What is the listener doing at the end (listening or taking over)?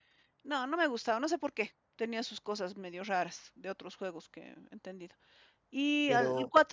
listening